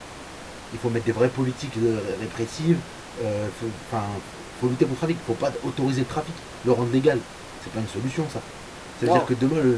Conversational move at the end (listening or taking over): listening